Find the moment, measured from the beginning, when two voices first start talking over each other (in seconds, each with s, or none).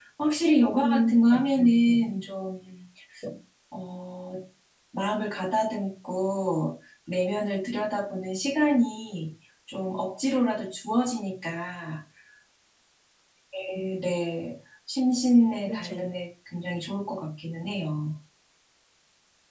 0.8 s